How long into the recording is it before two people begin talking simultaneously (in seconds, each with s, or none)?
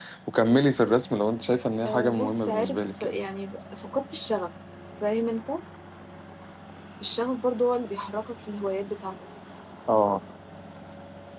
1.8 s